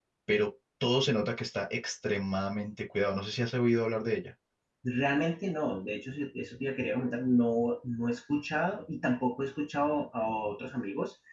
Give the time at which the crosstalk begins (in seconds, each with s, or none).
none